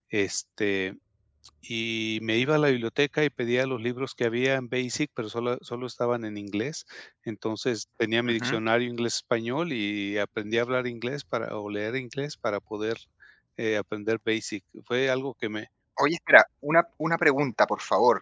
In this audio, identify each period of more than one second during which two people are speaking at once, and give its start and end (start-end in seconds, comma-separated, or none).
none